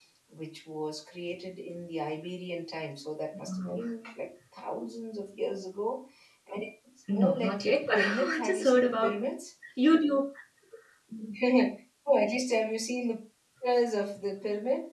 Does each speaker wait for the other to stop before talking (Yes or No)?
No